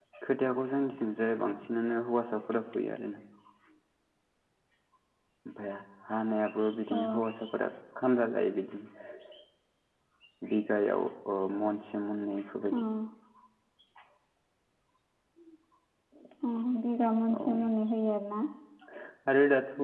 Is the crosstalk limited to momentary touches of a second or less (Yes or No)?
Yes